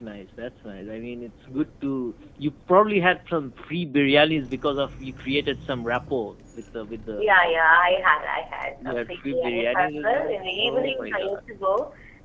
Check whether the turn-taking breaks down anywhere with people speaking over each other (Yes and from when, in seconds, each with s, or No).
Yes, from 8.8 s